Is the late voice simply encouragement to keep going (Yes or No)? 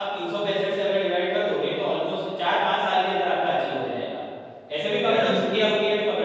Yes